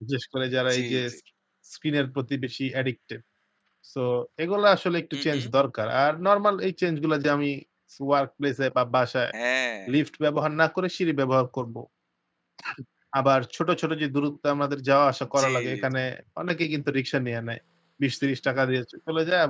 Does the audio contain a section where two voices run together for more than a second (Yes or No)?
No